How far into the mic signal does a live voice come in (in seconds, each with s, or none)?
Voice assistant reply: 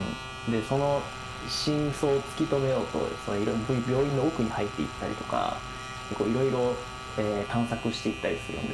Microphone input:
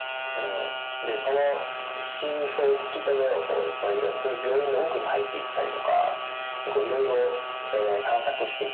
none